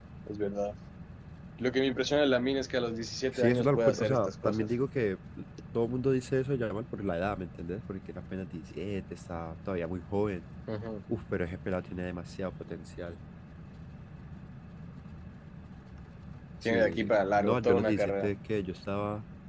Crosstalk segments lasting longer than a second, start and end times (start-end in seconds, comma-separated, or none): 3.3-4.7, 16.6-18.3